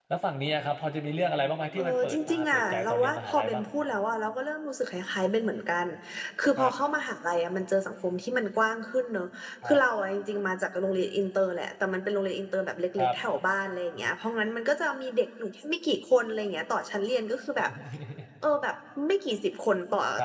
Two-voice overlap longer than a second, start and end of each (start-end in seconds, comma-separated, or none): 1.8-3.6